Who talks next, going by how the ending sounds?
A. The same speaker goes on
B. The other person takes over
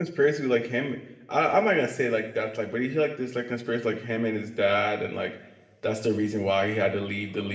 B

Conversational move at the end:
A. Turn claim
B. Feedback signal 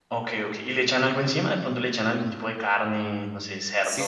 A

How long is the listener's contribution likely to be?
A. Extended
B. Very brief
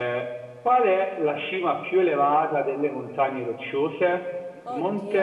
B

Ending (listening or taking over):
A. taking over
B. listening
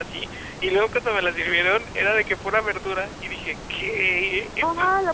A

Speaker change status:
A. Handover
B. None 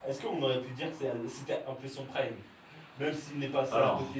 B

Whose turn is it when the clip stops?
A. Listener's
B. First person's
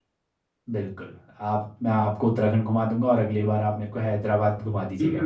A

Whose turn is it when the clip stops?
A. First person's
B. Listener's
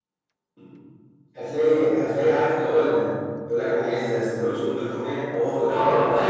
B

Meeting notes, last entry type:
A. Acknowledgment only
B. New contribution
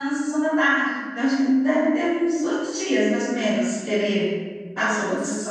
B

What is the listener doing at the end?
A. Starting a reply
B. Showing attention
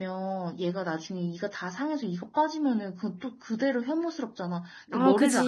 B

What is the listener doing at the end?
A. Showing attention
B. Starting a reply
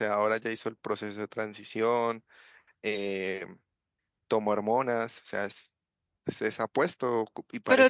A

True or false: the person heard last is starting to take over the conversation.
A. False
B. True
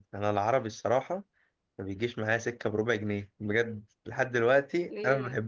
B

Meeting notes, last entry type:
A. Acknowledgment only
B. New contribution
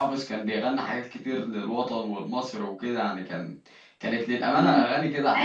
B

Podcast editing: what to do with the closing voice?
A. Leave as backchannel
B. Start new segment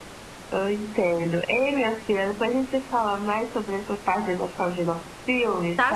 B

